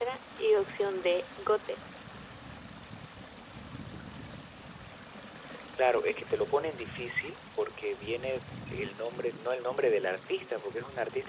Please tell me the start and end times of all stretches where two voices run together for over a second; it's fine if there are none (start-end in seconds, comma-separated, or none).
none